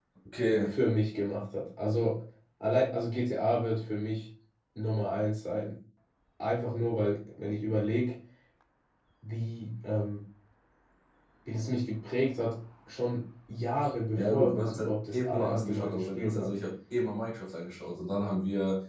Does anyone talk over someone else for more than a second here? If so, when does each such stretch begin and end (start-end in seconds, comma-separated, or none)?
14.1-16.6